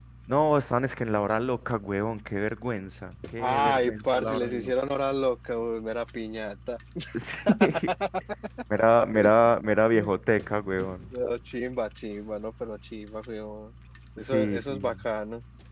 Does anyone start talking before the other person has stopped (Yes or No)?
Yes